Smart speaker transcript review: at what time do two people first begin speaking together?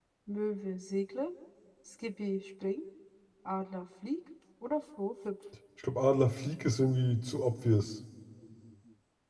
none

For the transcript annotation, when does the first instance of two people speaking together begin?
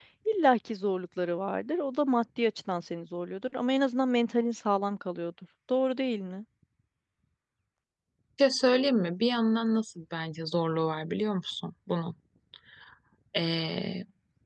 none

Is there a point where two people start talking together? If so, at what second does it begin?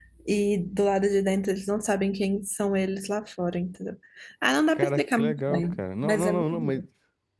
5 s

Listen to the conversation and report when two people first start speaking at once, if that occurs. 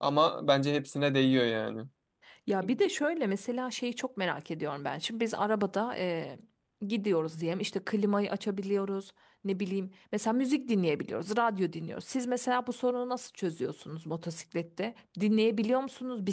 none

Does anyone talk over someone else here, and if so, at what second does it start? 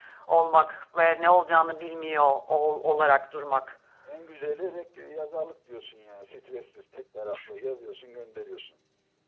none

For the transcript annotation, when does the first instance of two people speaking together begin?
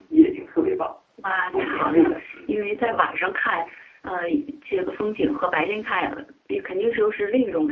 1 s

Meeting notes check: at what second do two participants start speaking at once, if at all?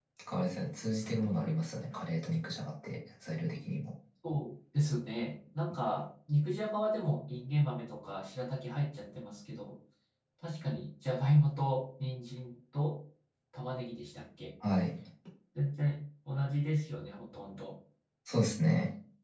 none

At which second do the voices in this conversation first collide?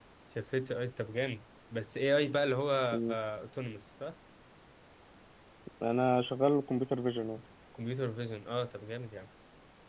none

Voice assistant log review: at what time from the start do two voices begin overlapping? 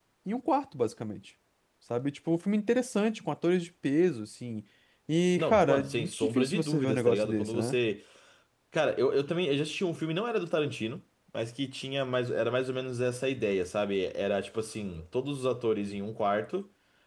5 s

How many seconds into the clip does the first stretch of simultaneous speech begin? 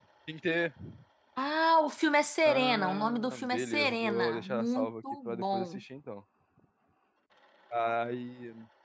2 s

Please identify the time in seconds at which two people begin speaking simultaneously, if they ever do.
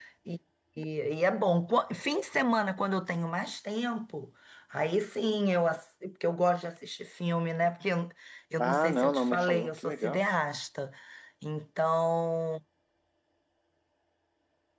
9 s

